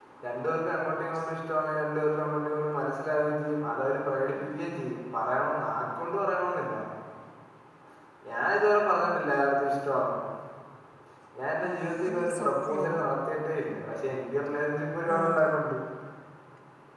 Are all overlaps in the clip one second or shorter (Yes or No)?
No